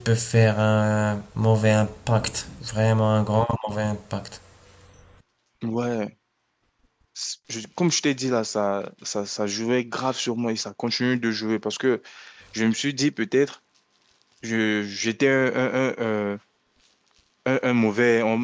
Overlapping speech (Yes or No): No